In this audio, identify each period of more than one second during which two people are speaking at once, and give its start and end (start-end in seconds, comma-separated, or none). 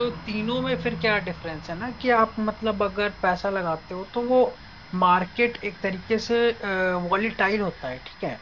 none